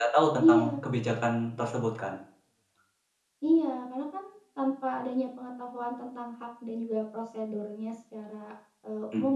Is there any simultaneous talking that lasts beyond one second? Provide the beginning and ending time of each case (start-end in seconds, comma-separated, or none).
none